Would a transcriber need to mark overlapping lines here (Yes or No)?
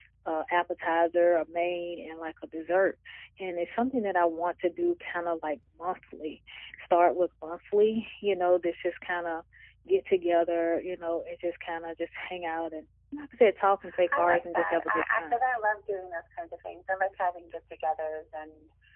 Yes